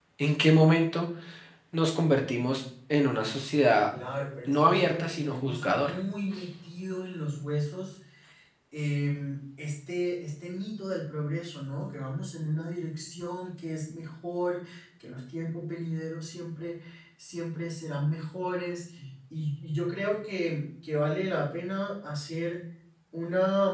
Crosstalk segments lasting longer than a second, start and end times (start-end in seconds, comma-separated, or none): 4.5-5.9